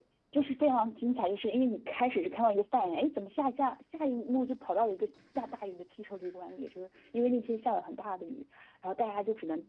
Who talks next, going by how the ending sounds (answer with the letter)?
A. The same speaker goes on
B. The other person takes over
A